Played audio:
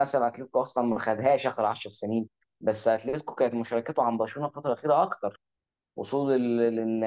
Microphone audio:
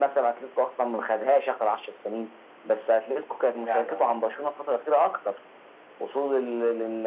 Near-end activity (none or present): present